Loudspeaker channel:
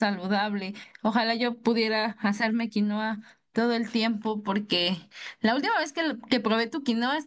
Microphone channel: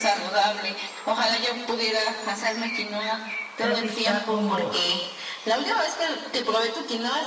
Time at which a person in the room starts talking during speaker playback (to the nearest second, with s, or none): 4 s